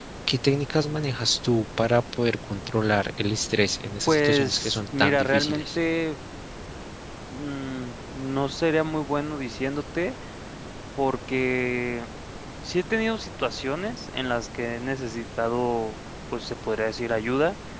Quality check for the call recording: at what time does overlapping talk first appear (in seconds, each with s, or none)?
4.1 s